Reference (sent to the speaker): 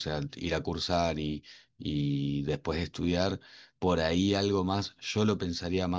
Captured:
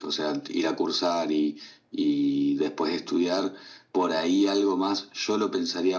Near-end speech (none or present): none